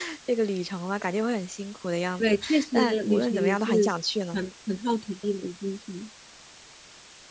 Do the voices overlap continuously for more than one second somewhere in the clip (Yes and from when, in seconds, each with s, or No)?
Yes, from 2.2 s